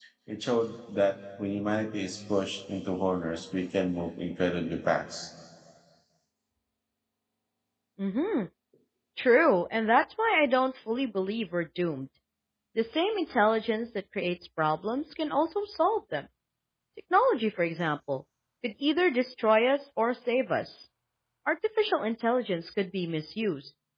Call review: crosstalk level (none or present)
none